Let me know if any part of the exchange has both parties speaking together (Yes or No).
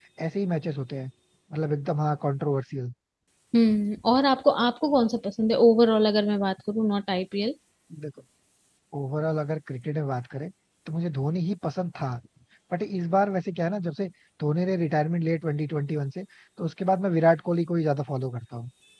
No